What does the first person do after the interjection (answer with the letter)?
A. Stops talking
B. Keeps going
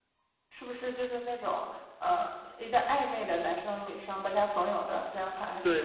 A